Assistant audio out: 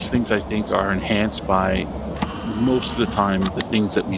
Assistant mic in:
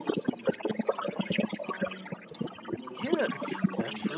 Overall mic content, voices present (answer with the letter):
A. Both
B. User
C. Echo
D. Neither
A